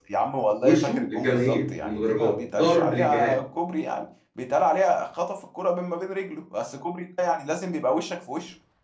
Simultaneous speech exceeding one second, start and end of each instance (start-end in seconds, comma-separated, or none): 0.6-3.3